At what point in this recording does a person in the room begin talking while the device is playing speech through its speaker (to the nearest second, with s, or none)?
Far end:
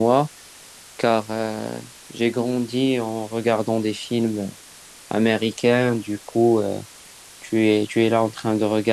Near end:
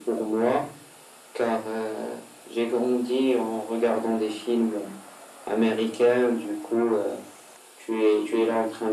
none